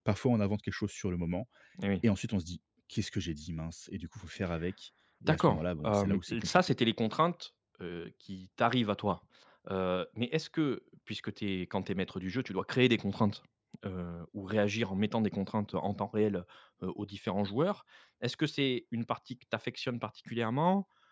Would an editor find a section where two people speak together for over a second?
Yes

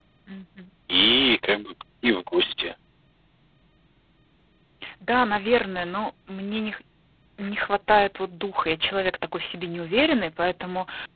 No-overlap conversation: Yes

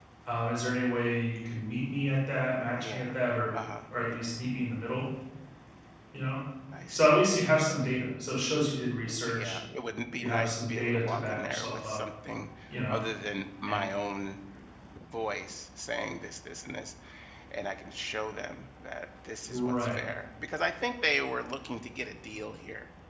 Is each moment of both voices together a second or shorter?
No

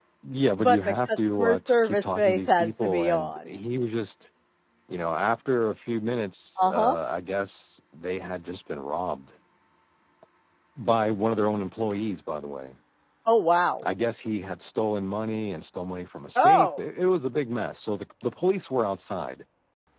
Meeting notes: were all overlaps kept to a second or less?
No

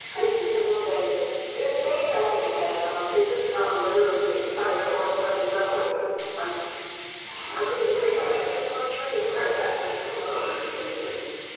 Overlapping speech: Yes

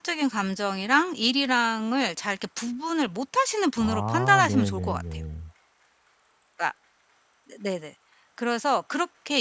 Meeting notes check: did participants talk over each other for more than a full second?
Yes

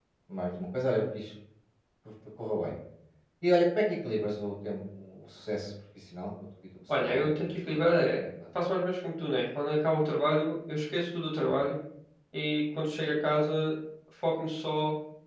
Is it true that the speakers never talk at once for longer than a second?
No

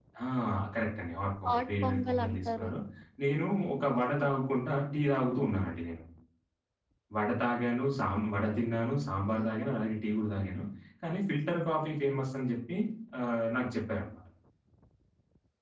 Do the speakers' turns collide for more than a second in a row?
Yes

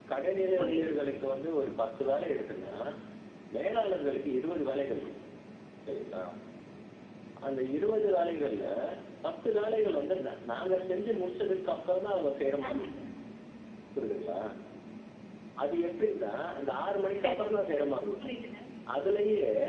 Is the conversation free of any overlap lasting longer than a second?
Yes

